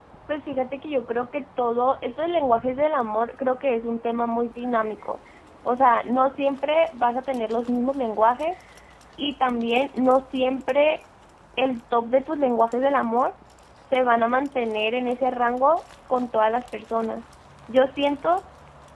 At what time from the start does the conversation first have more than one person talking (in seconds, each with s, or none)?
none